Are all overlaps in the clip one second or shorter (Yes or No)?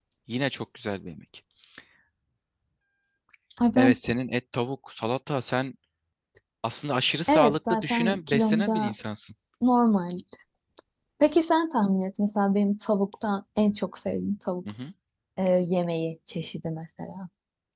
No